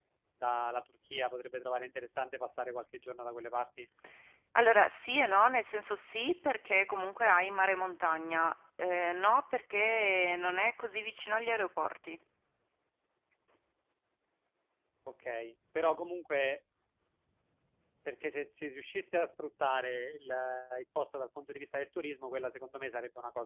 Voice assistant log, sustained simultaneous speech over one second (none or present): none